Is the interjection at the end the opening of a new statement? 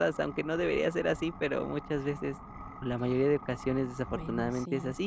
No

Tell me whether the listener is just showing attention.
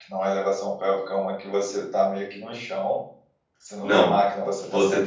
No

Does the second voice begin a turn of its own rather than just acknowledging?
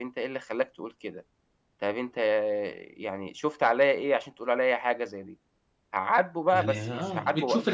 Yes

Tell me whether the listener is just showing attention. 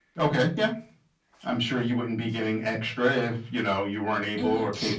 No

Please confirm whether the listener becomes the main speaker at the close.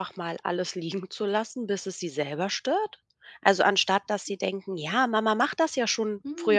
No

